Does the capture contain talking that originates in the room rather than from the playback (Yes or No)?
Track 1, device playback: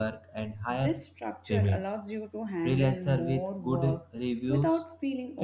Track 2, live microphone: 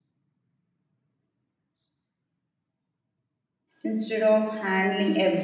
Yes